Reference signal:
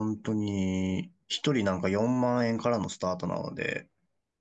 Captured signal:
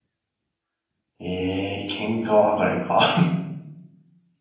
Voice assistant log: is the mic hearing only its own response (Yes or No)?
No